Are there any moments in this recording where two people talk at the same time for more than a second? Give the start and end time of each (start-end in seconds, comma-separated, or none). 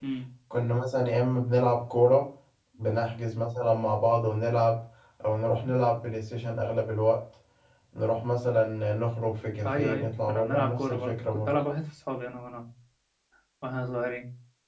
9.6-11.5